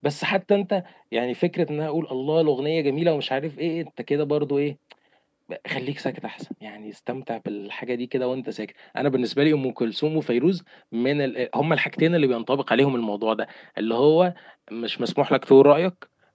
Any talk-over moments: No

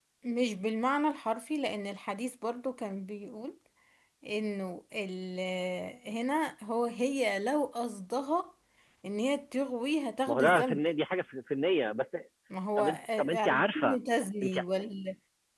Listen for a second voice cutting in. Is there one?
Yes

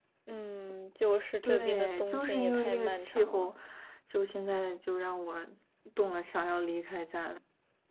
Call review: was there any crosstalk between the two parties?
Yes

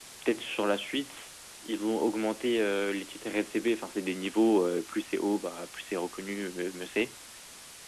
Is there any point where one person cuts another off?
No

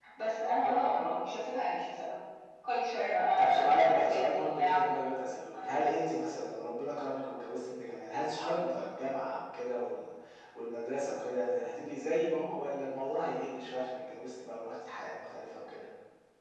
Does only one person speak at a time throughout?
No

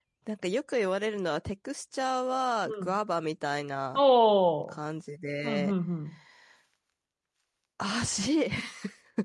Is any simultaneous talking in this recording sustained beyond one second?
No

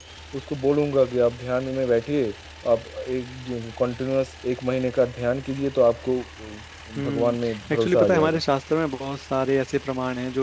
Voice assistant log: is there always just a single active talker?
No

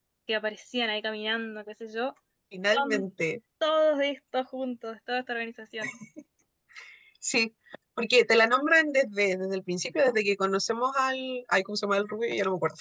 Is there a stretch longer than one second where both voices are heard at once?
No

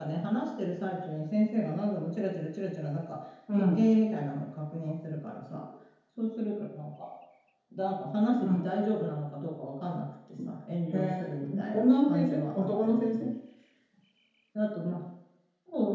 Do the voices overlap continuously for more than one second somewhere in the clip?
Yes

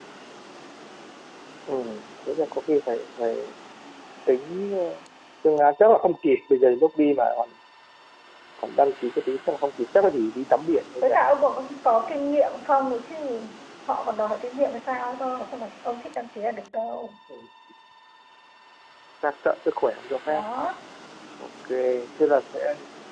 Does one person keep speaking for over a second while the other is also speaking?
No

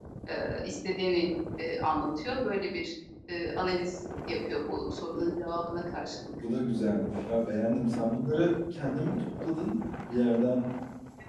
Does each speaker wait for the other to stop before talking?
Yes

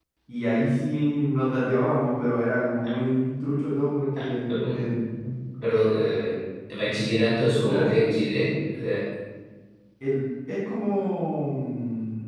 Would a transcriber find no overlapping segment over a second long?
Yes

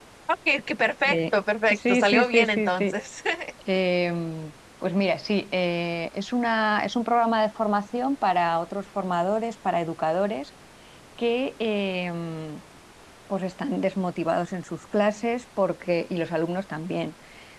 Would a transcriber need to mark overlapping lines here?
Yes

